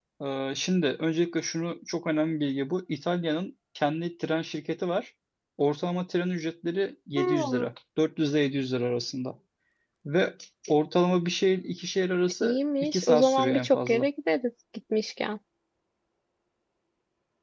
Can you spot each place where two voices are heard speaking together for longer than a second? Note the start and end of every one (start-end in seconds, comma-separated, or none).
12.4-14.1